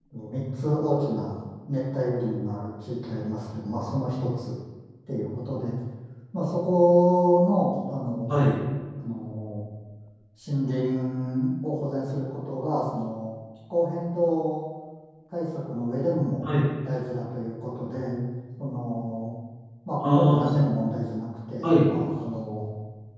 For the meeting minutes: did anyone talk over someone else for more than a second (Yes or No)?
No